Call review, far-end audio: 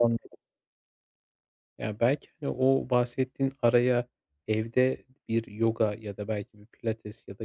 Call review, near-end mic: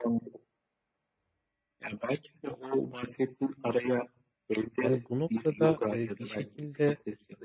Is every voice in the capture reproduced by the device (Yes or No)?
No